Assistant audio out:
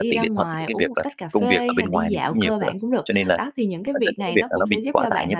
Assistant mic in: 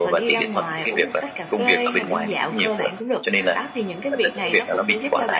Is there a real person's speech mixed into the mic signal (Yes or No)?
No